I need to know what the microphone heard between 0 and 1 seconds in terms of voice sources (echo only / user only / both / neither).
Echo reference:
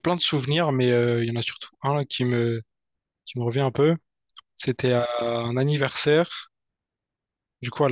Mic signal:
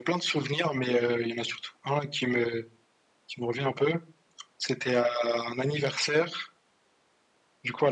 echo only